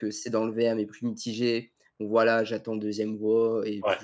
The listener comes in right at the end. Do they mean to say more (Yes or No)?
No